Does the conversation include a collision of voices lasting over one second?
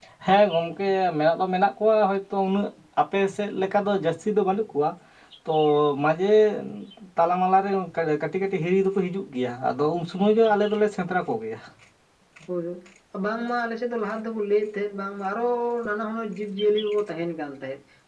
No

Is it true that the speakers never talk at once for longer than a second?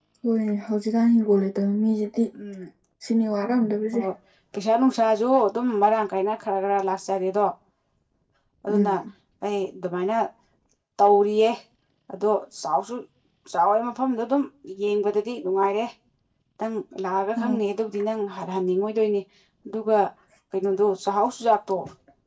Yes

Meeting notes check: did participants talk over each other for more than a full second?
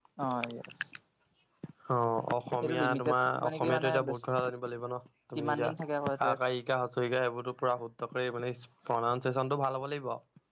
Yes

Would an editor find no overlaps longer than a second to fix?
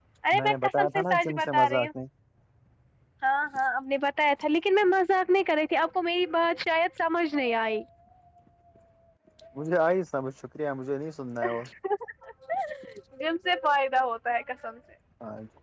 No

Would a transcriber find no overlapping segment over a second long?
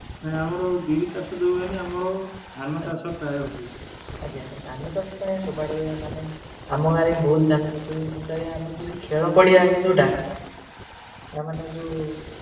Yes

